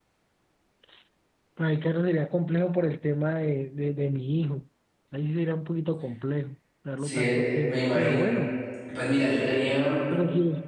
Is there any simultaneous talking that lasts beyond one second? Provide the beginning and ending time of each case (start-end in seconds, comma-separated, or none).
7.0-8.3